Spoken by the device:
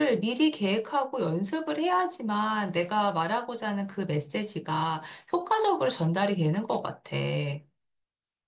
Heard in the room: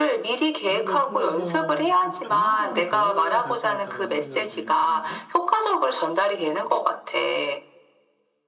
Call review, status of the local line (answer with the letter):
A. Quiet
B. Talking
B